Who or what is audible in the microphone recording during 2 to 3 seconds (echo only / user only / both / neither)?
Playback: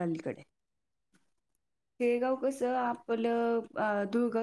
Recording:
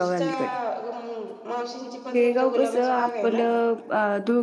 both